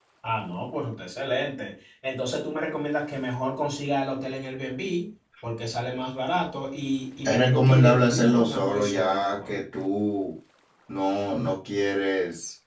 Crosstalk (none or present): present